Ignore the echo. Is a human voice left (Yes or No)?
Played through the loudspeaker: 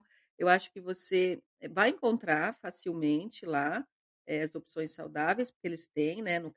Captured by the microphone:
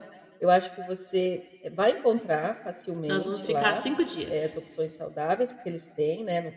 Yes